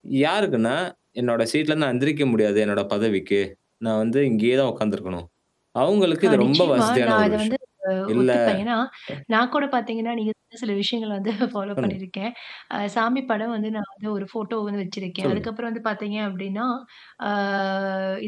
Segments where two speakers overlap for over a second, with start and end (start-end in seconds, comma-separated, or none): 6.2-7.5